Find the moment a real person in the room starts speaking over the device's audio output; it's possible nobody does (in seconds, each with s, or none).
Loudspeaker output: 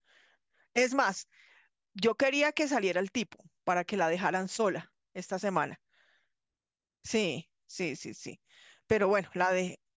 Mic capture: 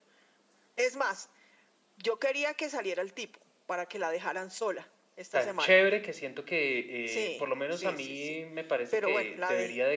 5.3 s